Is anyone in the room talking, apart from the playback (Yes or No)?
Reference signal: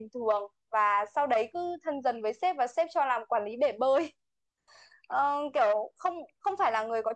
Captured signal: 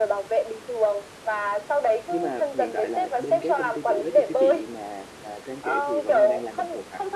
Yes